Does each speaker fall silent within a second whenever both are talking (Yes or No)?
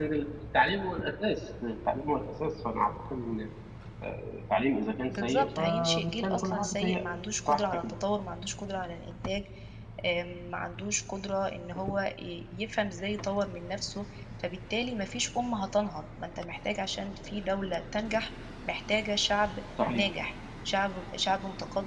No